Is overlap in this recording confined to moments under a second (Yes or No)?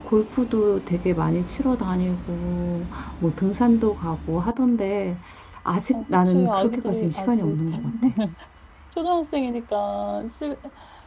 No